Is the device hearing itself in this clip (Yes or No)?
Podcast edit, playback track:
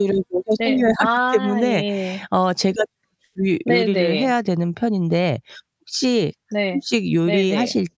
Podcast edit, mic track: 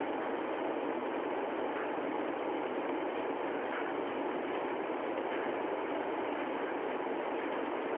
No